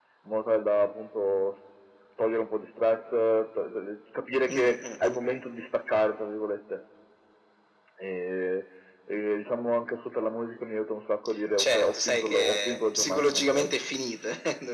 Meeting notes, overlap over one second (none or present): present